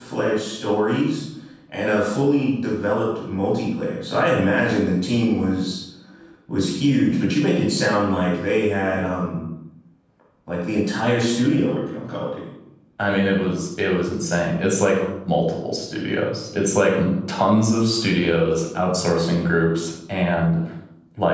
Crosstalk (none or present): none